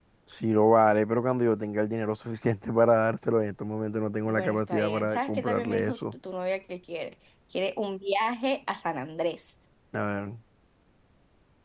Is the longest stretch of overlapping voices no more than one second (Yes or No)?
No